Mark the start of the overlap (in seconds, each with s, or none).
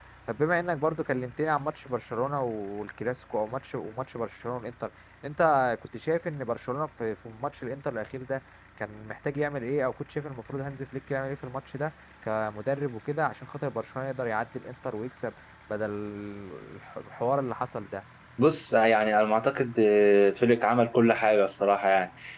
none